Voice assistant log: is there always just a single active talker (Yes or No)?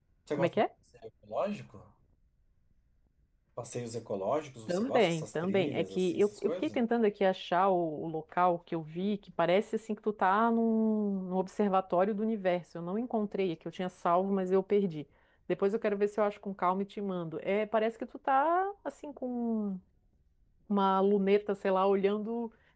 No